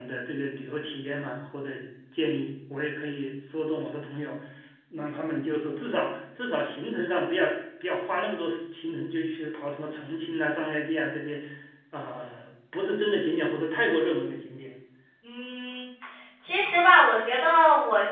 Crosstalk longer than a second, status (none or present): none